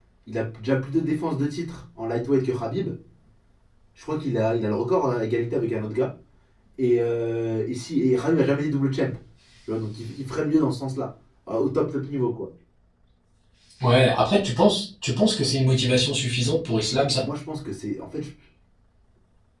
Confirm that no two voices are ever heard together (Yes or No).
Yes